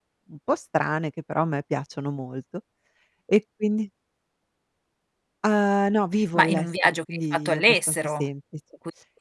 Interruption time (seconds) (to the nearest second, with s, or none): 6 s